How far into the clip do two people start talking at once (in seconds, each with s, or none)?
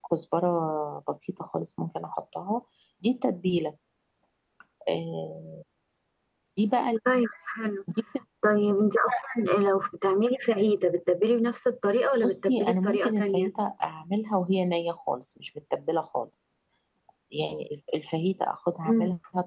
12.2 s